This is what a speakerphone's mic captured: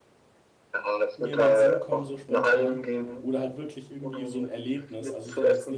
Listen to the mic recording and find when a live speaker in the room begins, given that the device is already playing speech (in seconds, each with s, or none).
1.1 s